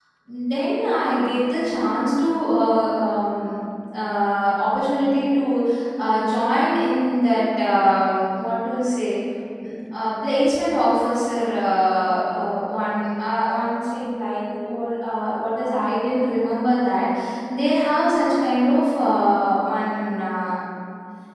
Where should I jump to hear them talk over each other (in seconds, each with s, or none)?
none